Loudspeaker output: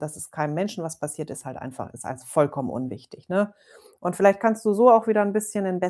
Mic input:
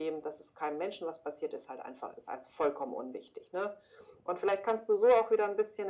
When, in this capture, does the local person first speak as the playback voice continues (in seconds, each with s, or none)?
none